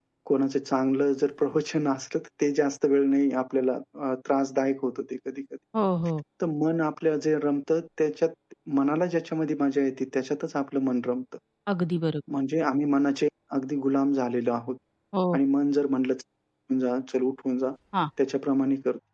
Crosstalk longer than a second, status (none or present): none